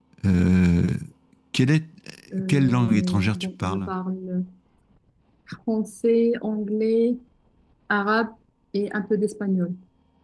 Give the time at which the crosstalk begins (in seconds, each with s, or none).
2.5 s